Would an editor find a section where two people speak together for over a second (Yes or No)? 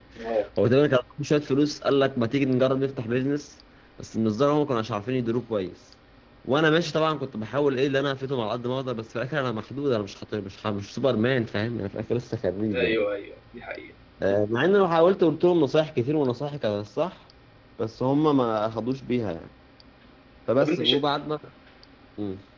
No